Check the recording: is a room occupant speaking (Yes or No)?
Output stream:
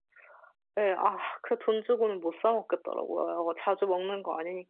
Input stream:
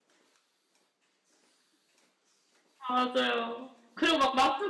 Yes